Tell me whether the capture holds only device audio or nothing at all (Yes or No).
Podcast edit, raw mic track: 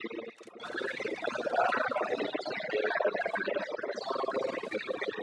Yes